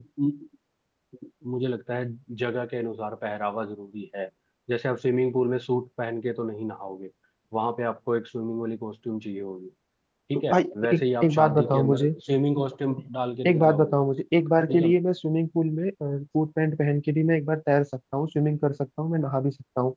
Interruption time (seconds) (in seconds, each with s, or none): 10.3 s